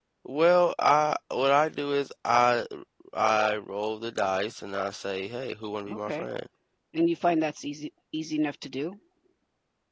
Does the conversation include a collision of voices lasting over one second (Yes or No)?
No